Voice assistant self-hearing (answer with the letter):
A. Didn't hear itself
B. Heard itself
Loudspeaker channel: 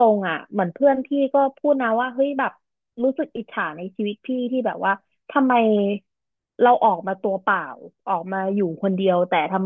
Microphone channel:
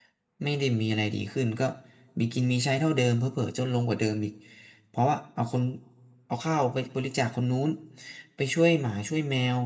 A